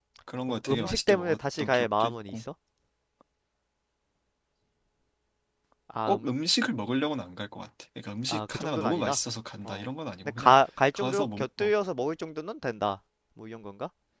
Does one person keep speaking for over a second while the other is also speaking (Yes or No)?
Yes